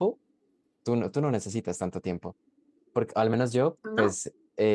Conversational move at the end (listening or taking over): listening